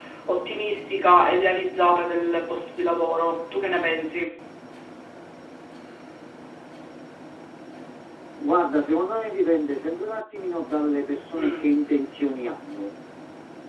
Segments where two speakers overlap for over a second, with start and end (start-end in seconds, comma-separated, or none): none